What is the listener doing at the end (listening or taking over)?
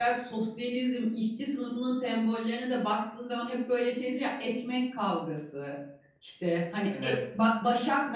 listening